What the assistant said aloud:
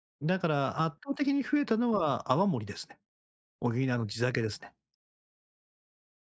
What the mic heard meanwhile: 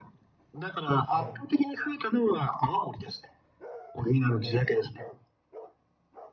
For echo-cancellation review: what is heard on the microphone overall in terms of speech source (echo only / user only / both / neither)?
both